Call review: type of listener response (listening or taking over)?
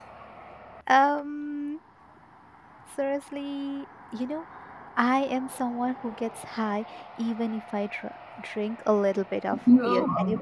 listening